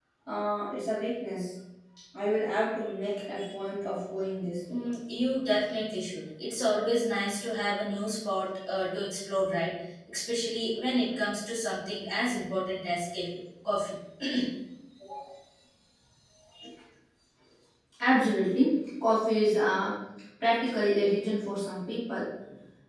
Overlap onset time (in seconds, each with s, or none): none